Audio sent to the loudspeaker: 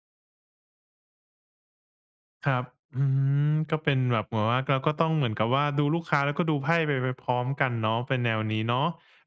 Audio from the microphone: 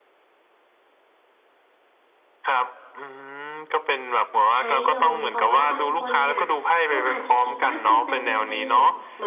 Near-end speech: present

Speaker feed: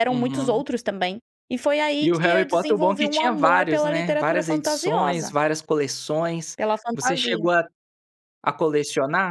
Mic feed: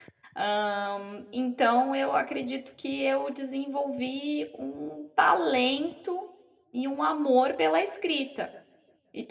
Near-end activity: present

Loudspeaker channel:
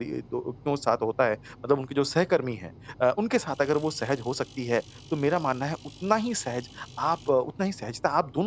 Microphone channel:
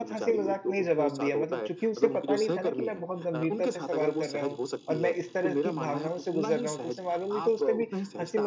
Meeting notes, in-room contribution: present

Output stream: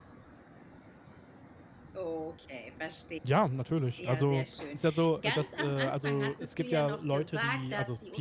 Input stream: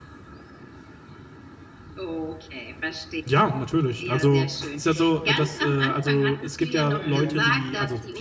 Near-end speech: present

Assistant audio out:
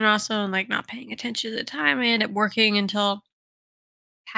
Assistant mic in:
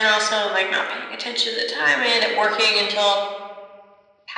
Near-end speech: none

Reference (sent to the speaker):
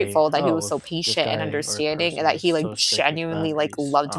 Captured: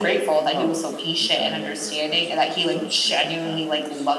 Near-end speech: none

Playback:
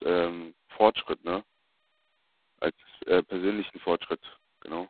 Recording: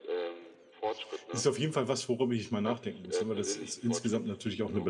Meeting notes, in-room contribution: present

